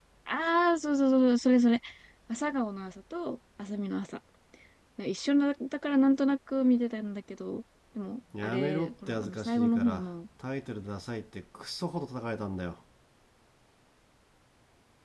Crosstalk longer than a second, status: present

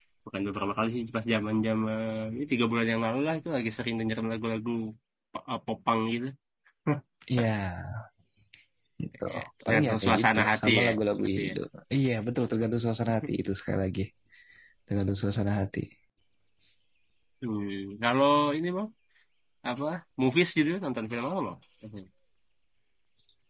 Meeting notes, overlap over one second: present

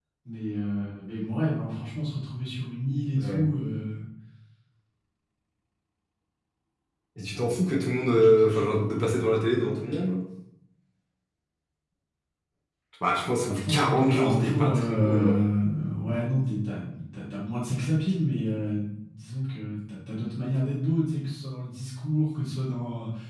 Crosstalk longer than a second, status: present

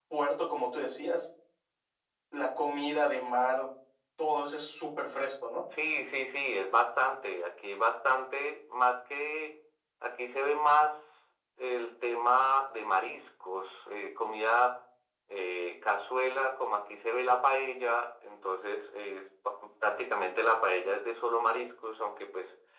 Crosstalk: none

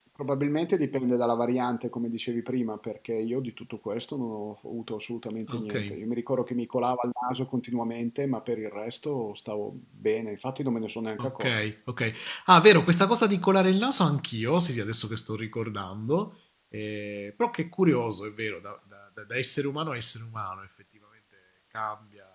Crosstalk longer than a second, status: none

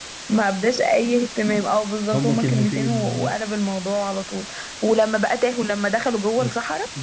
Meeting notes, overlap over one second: present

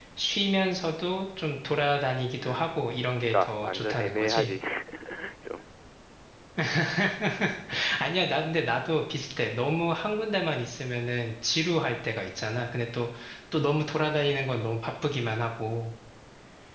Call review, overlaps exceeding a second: present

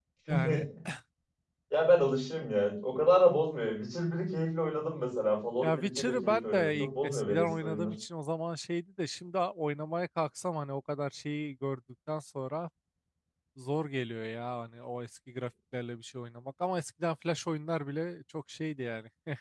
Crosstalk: present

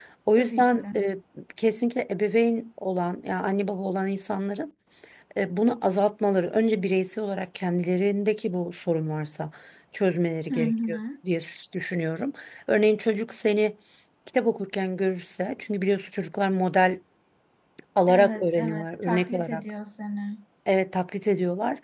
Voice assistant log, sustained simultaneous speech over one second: present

